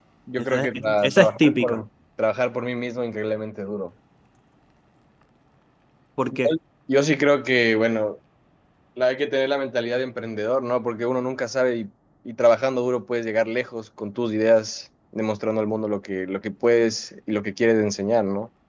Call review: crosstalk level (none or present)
present